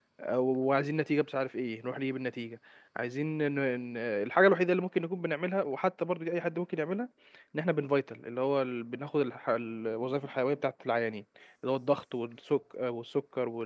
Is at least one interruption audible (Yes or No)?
No